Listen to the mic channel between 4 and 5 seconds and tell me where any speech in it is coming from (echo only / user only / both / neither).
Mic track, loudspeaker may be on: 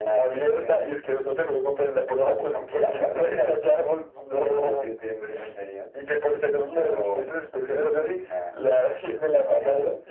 echo only